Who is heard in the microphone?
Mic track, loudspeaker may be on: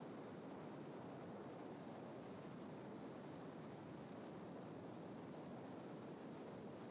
neither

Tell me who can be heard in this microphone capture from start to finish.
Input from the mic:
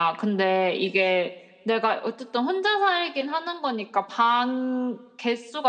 echo only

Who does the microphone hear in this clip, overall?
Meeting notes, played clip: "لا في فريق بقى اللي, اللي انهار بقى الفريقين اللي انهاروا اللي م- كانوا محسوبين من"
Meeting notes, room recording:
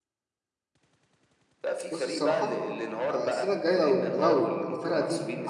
both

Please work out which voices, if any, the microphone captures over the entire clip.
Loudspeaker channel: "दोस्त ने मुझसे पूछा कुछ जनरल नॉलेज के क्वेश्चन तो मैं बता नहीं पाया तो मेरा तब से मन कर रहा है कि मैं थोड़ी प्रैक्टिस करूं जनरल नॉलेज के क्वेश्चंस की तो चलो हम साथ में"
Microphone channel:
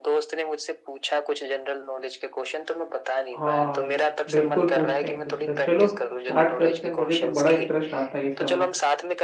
both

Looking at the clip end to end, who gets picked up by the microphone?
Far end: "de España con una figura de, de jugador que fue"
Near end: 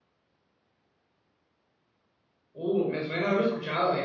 user only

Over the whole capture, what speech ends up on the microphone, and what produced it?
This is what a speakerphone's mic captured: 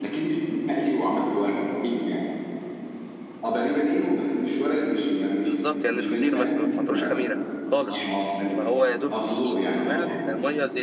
both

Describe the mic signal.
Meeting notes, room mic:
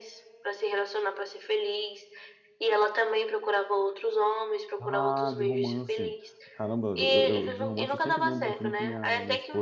both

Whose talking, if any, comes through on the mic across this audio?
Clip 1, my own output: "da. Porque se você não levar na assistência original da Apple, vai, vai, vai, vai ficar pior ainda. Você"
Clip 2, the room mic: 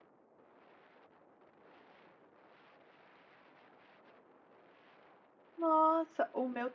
user only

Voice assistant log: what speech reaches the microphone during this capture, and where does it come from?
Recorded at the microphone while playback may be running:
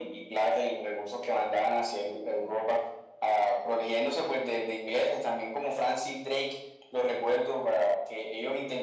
echo only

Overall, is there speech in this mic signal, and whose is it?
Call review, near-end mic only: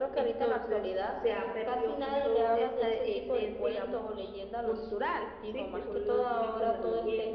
echo only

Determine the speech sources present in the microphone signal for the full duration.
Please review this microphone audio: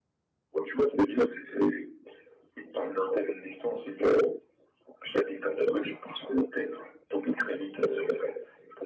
echo only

